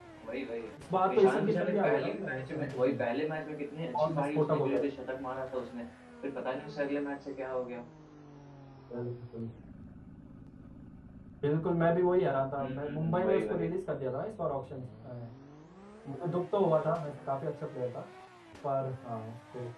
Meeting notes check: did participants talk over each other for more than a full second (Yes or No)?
Yes